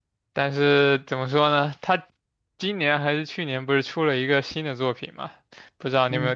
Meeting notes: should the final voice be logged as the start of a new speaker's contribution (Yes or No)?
No